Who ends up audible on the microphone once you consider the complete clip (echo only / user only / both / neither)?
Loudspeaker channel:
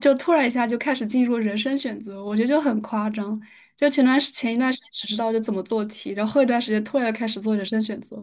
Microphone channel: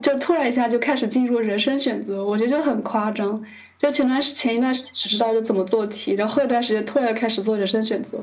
echo only